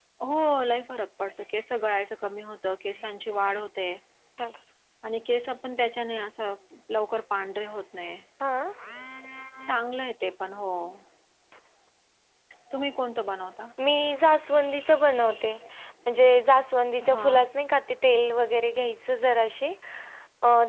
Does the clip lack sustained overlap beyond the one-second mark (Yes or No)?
Yes